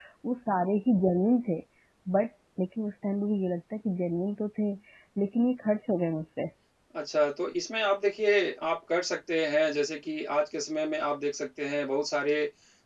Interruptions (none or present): none